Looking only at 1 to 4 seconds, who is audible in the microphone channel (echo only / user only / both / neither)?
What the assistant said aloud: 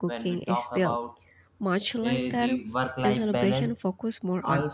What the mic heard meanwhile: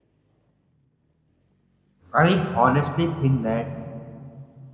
user only